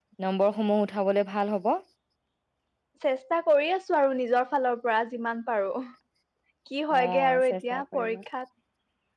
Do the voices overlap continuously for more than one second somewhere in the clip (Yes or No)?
Yes